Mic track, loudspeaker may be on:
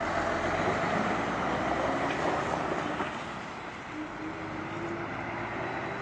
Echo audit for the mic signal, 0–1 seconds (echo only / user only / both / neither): neither